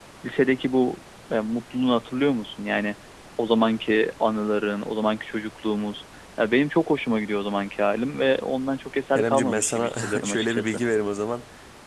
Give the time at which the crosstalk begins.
9.2 s

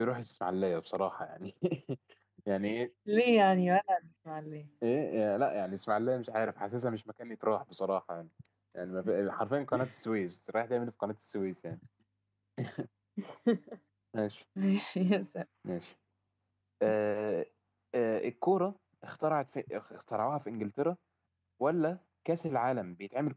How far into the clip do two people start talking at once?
none

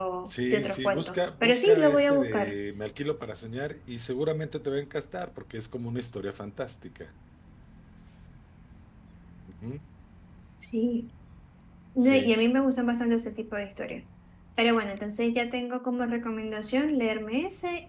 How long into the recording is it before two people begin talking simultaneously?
0.5 s

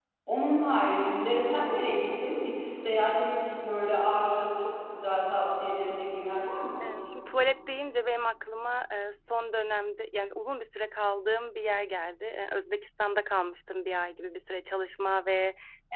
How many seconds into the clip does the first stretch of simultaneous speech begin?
none

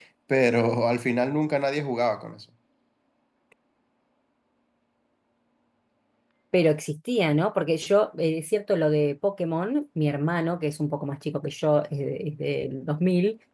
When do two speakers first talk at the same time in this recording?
none

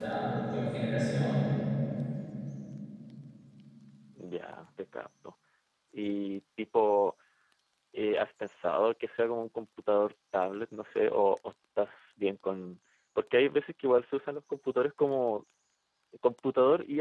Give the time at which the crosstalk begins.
none

